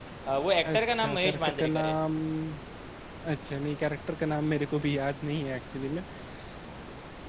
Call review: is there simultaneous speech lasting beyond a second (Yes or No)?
Yes